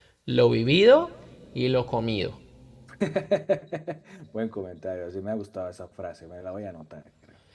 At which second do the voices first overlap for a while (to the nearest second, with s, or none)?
none